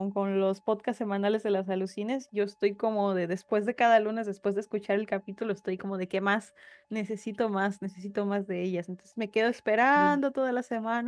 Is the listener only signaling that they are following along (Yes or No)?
Yes